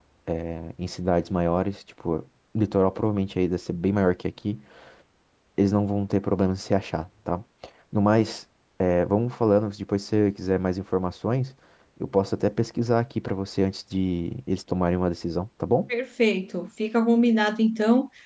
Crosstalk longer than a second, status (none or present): none